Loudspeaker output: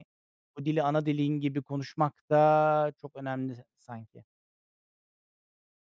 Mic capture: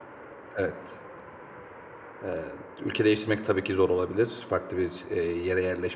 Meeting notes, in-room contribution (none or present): present